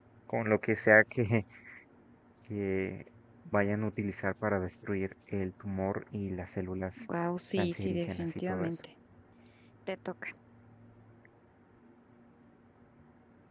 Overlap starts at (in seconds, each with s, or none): 7.6 s